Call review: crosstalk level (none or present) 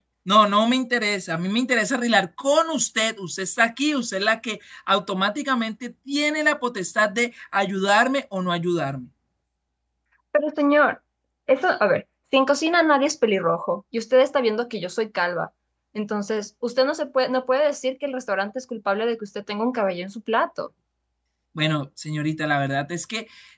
none